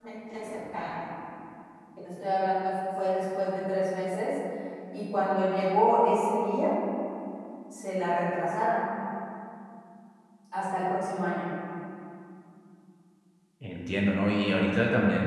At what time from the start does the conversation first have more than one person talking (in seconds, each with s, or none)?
none